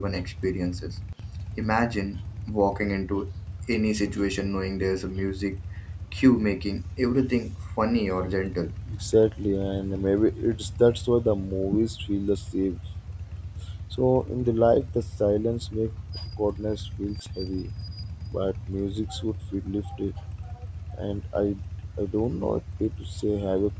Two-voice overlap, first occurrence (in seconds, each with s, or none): none